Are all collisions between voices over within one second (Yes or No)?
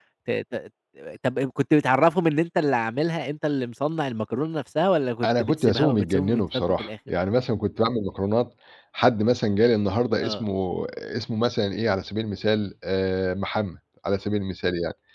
No